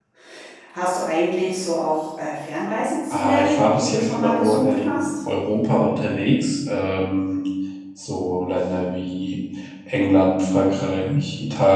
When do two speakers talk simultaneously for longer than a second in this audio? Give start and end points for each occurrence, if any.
3.1-5.1

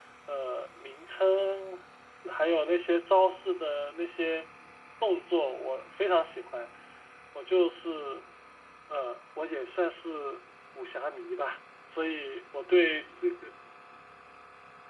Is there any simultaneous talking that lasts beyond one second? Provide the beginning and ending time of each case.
none

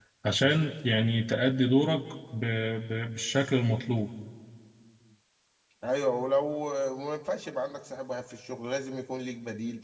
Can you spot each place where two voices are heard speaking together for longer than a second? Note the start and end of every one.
none

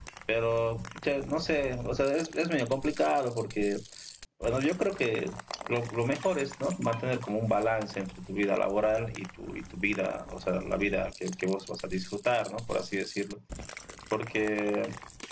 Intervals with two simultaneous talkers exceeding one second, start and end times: none

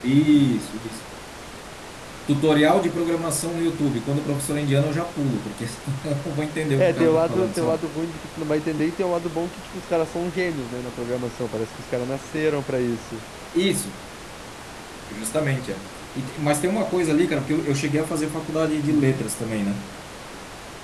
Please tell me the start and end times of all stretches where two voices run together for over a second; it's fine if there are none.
6.6-7.8

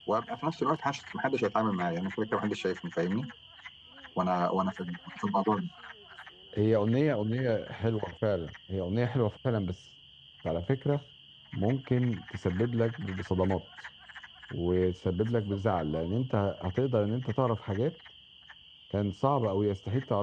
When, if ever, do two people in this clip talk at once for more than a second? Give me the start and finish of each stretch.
none

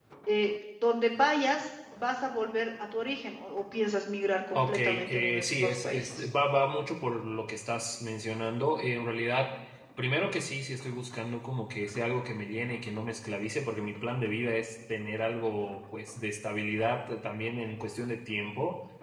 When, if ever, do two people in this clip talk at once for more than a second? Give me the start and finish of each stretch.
4.5-6.3

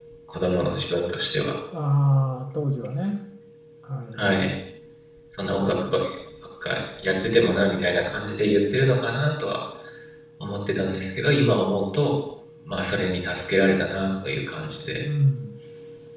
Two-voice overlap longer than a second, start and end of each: none

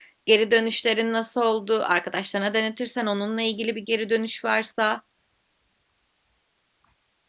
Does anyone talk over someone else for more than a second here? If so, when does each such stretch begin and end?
none

